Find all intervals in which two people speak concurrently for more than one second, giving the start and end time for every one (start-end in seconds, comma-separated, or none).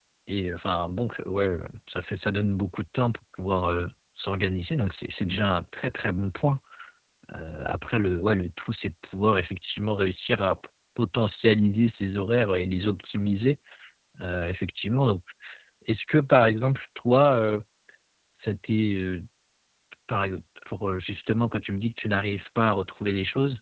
none